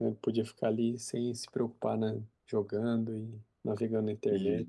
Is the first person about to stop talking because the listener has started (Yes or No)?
Yes